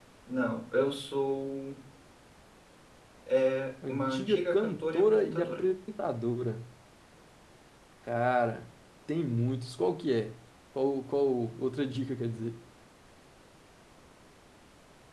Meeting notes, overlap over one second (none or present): present